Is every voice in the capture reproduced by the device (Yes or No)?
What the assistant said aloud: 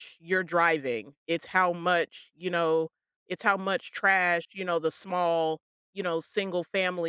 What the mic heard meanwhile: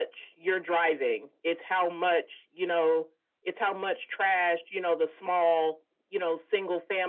Yes